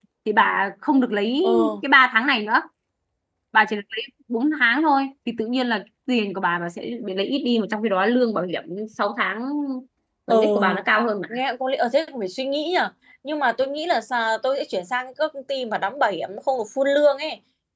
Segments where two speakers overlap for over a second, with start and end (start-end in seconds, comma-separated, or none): none